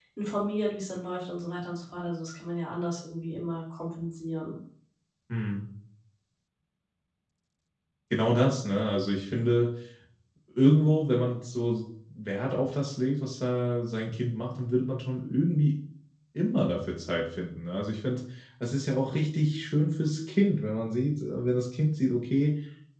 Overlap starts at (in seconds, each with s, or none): none